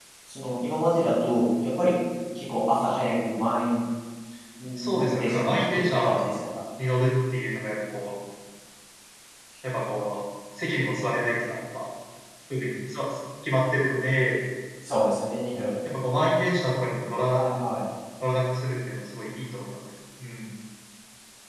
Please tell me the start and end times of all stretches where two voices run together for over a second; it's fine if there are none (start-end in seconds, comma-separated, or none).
4.8-6.2